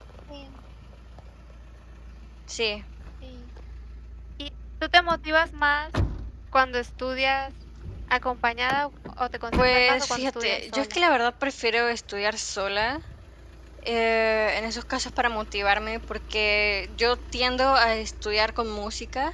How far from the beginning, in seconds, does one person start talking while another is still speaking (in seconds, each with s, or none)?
9.6 s